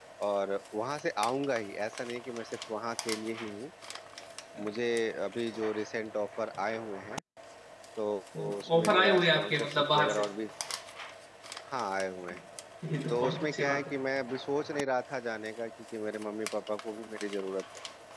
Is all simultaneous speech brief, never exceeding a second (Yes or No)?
No